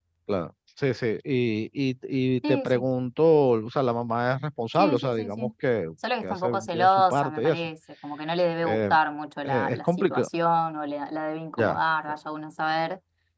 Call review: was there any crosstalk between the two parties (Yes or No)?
Yes